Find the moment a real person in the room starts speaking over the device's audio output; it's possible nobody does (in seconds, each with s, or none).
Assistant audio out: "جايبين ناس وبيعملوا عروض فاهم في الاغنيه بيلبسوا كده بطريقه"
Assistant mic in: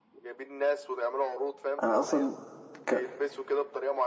1.8 s